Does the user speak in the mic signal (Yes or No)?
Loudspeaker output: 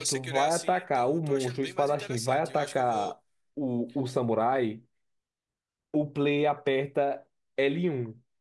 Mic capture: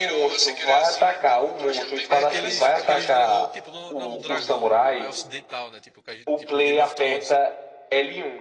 Yes